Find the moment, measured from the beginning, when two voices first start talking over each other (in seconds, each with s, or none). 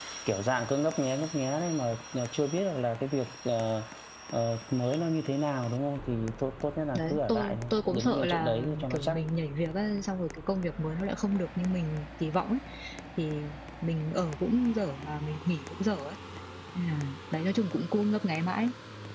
7.0 s